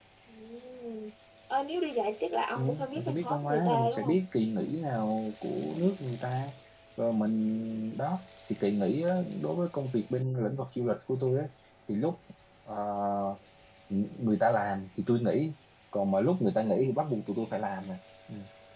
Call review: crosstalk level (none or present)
present